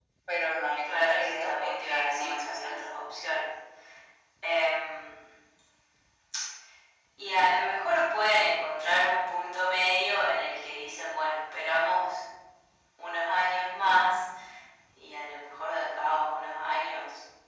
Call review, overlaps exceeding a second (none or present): present